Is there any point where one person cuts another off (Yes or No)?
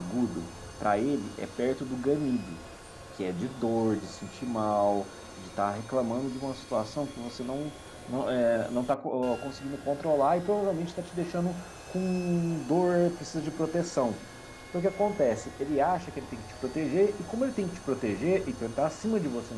No